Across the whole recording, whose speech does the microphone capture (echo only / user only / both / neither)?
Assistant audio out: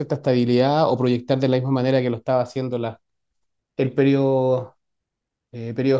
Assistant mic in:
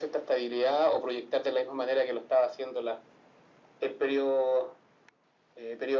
echo only